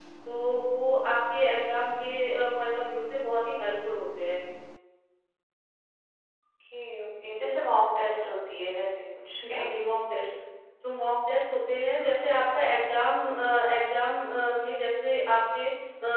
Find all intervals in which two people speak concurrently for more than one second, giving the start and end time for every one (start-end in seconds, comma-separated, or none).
none